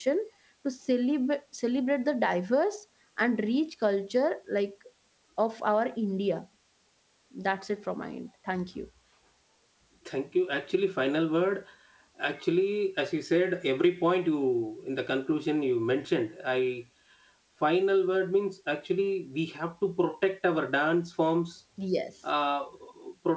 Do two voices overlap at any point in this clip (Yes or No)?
No